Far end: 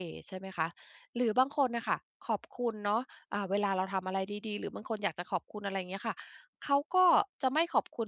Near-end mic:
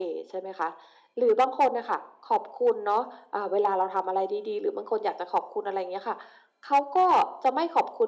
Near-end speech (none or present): none